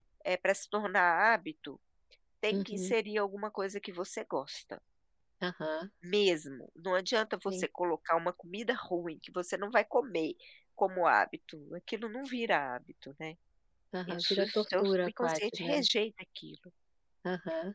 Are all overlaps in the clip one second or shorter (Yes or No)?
No